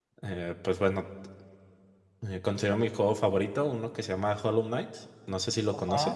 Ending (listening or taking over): taking over